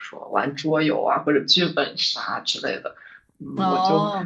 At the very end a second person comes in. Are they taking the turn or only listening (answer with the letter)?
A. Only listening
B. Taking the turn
A